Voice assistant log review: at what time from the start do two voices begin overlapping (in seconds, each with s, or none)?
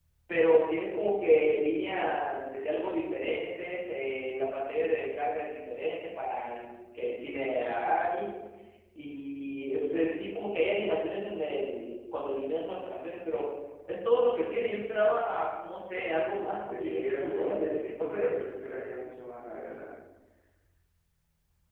16.1 s